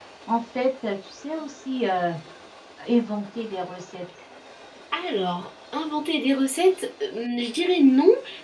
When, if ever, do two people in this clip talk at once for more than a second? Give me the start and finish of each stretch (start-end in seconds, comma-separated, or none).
none